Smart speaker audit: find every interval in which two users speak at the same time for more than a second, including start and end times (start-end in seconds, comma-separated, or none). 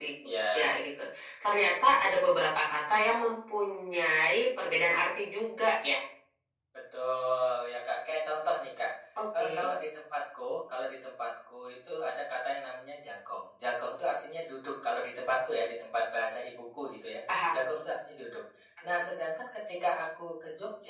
none